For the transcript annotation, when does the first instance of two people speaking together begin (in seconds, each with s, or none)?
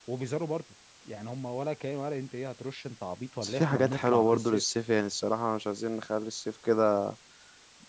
3.4 s